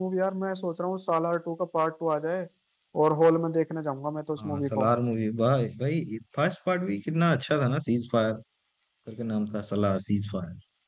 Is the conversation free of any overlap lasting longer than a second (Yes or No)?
Yes